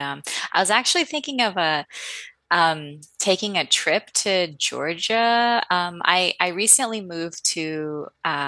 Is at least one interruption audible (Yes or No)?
No